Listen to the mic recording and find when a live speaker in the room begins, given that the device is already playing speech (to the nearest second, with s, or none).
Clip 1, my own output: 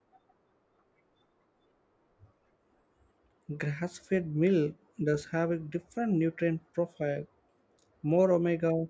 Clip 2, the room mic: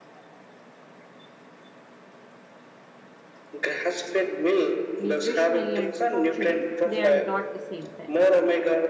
5 s